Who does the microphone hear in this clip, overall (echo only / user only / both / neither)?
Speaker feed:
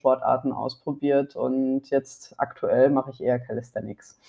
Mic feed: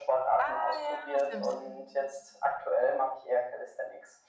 both